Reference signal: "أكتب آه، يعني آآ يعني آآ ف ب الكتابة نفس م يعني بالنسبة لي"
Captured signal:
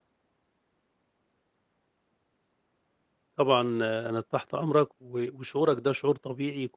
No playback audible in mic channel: Yes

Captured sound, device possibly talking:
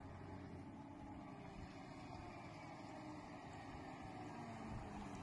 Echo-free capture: Yes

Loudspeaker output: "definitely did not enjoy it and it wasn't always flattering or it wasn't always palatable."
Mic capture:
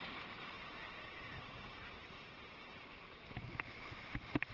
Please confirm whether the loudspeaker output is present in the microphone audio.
No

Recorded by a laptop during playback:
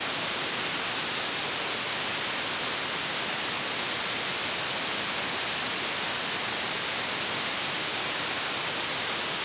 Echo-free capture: Yes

